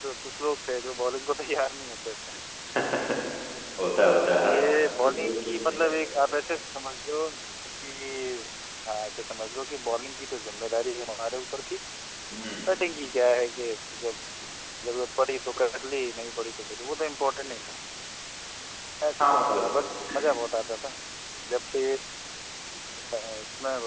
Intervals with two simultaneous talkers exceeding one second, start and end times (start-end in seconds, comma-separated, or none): 4.0-5.9